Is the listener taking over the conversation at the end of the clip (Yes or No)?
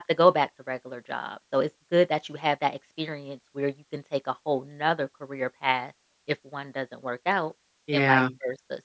No